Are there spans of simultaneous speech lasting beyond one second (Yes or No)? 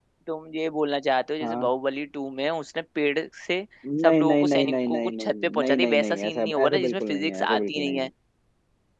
Yes